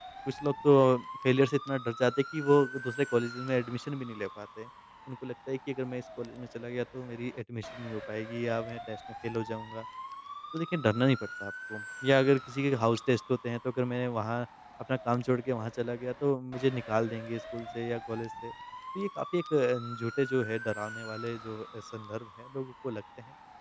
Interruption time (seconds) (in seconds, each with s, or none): none